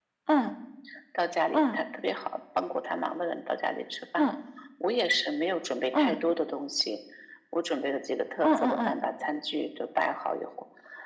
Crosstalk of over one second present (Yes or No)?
No